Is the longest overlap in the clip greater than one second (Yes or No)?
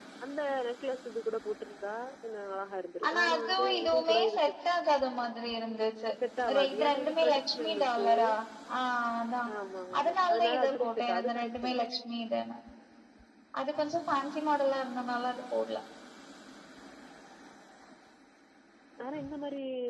Yes